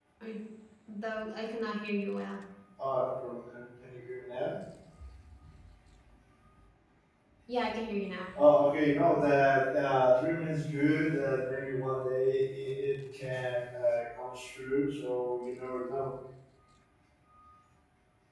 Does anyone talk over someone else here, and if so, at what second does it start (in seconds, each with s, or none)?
none